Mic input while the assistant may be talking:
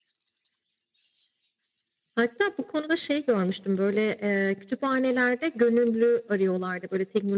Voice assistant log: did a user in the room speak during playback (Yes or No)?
No